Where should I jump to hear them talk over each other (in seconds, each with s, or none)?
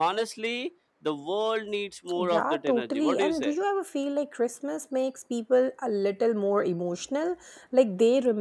2.1 s